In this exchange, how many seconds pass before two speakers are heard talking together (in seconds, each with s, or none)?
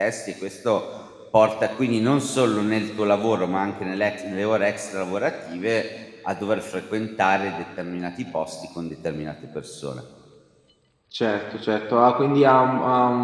none